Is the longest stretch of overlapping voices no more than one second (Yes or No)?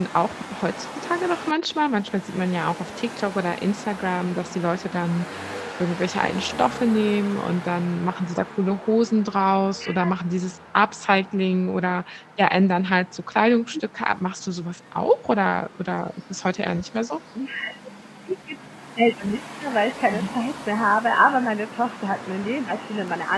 Yes